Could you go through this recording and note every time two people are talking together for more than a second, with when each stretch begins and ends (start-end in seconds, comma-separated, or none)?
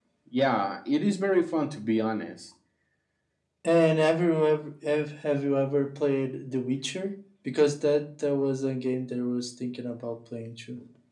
none